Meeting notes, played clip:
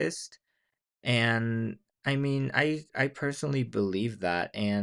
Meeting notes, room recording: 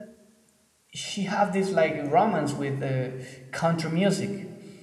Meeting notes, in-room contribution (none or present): present